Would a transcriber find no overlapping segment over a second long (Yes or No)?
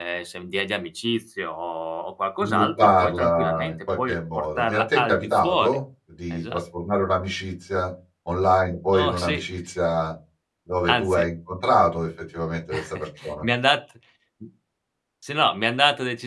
No